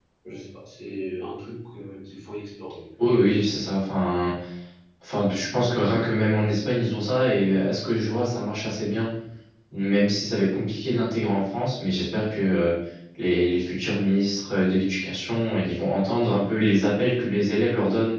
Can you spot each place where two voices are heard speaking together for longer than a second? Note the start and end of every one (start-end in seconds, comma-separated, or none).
none